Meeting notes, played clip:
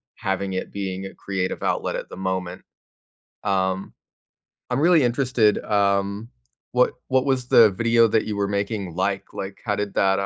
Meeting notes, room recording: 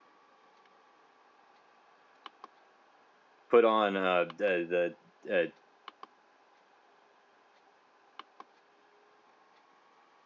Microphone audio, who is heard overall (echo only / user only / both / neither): user only